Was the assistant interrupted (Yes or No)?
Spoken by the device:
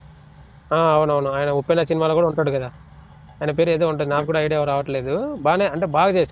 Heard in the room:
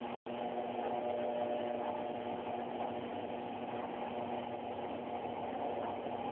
No